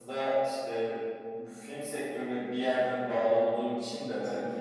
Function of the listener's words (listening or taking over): listening